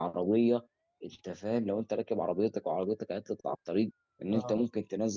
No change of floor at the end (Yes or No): Yes